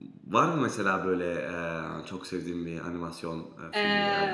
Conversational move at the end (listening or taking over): taking over